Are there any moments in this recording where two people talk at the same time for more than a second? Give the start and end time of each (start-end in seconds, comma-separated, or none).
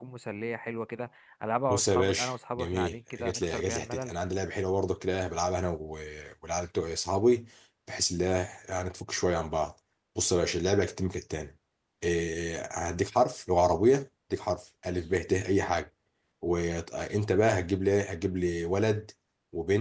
1.7-4.1